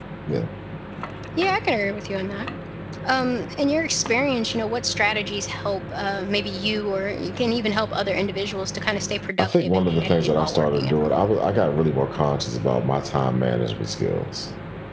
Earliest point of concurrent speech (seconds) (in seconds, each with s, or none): 9.4 s